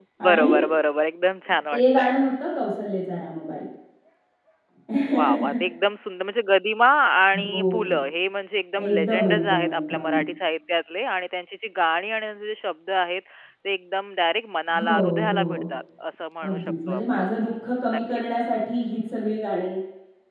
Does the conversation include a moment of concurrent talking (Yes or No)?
Yes